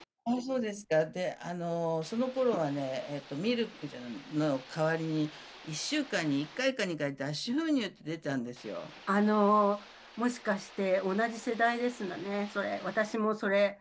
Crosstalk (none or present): none